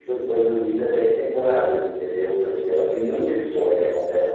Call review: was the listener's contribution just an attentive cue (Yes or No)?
No